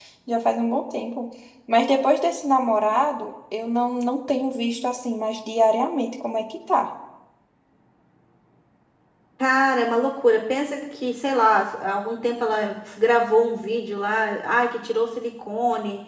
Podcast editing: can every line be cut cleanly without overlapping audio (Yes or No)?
Yes